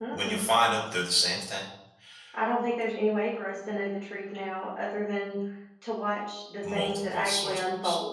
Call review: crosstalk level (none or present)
present